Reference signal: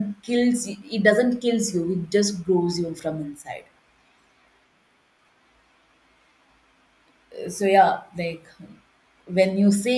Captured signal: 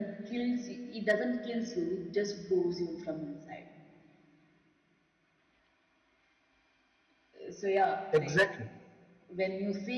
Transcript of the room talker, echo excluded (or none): exactly